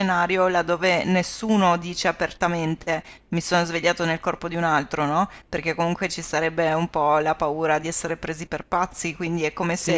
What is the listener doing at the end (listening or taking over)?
listening